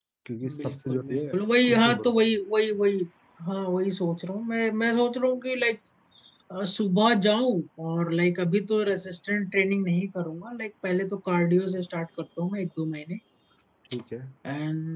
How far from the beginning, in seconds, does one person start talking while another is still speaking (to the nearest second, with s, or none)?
1 s